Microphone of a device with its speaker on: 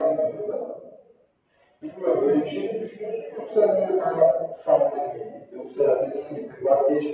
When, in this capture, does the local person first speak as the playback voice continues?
none

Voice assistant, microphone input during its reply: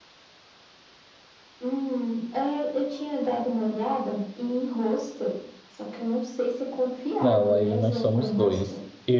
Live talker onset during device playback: 7.2 s

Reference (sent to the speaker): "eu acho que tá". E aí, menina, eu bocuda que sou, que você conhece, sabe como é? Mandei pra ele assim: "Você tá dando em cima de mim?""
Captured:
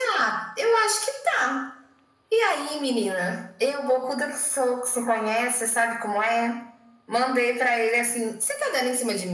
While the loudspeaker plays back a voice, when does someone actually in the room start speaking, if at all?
none

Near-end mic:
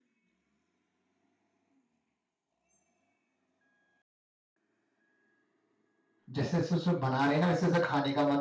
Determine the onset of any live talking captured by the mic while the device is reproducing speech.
6.3 s

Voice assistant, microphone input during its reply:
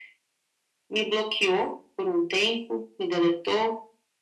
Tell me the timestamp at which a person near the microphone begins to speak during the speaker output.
none

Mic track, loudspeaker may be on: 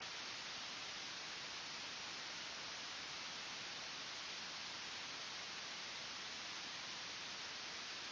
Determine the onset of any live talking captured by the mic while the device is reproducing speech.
none

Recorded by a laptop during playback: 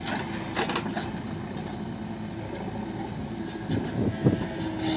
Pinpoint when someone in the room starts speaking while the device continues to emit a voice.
none

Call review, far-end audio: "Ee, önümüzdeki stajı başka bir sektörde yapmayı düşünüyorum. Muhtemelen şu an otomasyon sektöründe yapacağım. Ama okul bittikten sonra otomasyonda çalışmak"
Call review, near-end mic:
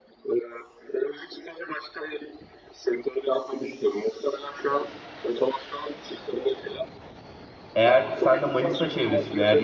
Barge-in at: 7.7 s

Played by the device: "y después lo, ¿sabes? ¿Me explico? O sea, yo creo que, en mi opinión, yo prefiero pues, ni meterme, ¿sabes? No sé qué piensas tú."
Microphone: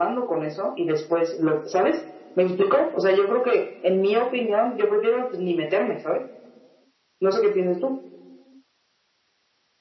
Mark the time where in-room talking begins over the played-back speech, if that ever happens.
none

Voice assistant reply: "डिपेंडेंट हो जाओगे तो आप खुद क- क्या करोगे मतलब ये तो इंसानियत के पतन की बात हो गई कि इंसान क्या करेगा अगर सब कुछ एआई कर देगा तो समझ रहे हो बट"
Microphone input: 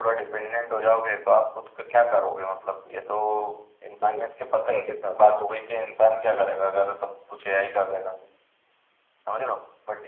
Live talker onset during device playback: 4.0 s

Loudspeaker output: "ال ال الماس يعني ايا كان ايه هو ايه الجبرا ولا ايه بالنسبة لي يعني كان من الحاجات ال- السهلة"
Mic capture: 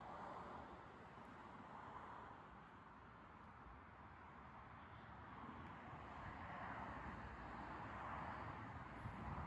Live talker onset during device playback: none

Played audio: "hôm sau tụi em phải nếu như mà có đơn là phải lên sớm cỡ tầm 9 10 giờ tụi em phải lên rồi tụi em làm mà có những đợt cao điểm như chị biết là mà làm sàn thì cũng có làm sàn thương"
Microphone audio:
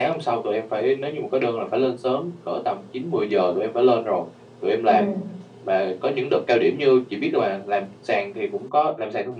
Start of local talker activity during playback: 4.9 s

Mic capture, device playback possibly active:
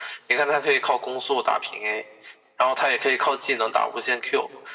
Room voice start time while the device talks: none

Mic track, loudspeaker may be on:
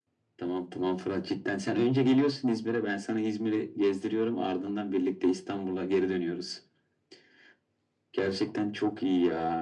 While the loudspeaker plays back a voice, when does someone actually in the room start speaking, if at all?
none

